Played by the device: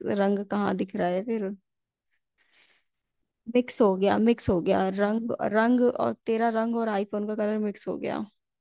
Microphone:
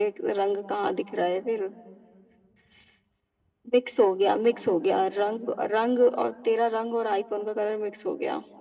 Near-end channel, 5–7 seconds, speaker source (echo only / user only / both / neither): echo only